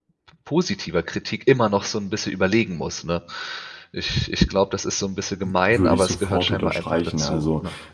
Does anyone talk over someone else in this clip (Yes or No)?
Yes